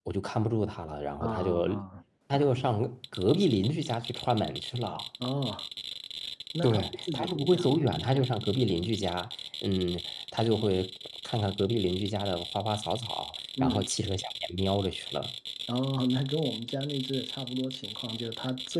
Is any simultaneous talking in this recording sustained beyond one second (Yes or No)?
Yes